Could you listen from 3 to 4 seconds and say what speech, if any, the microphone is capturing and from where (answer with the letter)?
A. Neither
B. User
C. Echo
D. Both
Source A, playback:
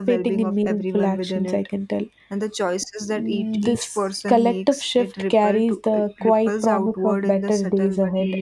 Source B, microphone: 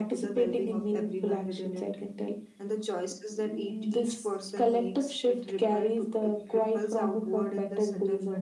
C